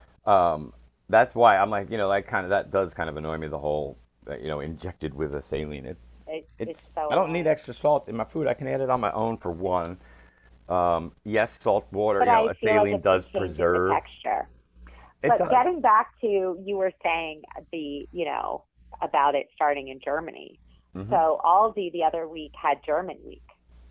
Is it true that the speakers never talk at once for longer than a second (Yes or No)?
No